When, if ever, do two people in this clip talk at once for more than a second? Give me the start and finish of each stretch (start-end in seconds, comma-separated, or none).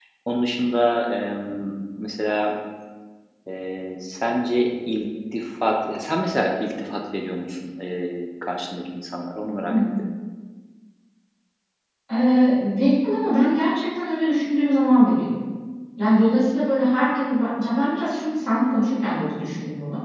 none